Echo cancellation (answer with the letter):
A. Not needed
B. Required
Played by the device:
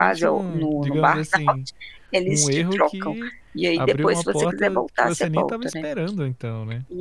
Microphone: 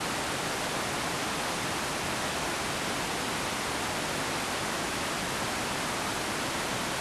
A